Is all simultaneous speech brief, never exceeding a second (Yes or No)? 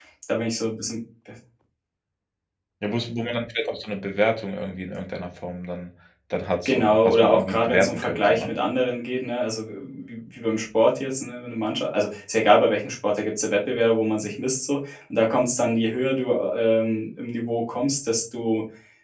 No